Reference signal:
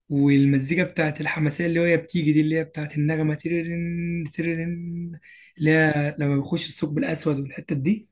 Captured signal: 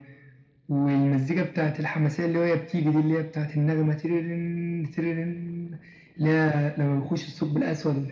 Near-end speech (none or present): none